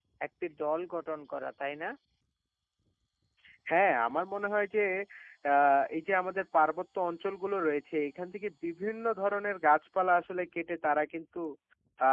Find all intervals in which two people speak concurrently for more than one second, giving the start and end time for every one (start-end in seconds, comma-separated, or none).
none